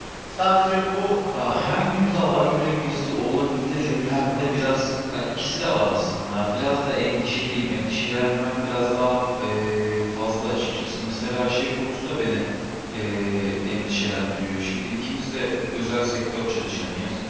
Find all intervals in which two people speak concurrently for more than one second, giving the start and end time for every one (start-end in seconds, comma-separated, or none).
1.3-4.9